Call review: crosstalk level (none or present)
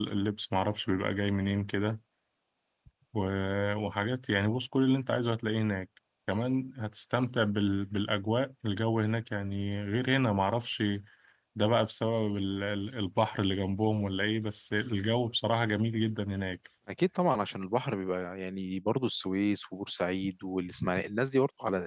none